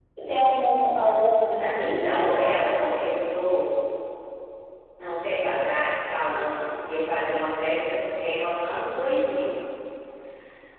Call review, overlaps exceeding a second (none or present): none